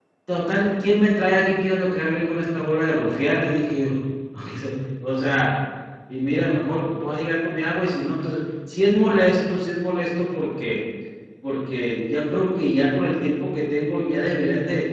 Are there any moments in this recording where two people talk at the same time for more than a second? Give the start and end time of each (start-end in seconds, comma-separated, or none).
none